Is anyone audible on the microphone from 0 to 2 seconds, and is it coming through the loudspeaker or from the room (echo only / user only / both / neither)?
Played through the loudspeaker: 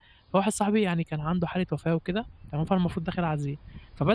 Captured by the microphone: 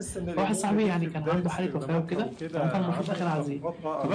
both